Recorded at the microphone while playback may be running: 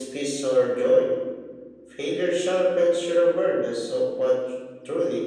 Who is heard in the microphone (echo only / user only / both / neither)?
echo only